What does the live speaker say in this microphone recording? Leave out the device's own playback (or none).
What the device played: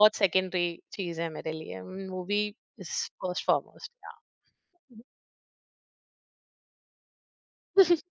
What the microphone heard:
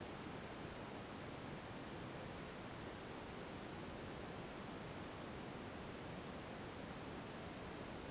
none